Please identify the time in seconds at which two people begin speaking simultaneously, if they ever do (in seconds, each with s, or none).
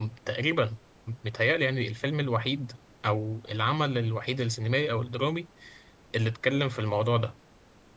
none